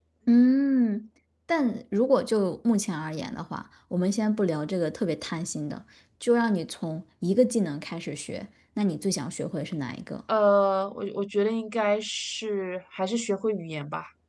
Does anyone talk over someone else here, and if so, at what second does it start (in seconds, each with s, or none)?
none